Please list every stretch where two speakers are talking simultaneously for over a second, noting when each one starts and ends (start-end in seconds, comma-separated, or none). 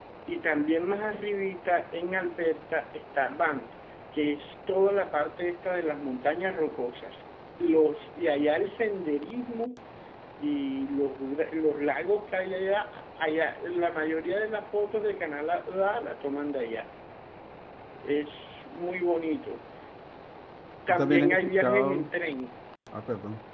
20.9-22.1